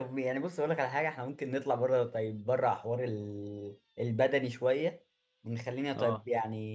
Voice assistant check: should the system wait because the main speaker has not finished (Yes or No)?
Yes